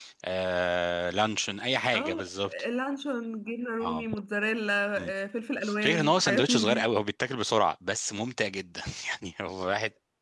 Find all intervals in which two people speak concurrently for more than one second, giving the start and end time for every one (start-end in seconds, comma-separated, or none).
5.6-6.8